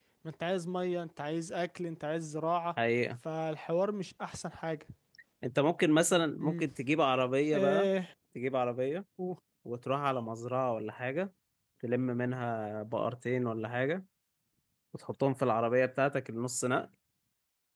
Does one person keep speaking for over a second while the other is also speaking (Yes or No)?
No